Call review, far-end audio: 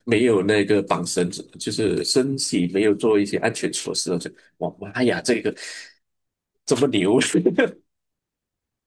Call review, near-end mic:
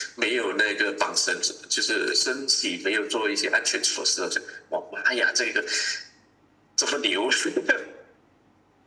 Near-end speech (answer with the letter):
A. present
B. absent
B